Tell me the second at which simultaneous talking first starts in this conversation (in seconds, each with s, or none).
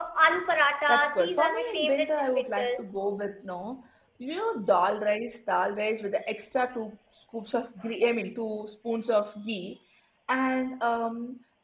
0.9 s